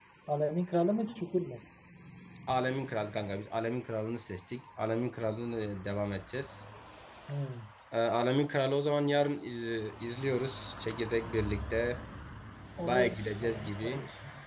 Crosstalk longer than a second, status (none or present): present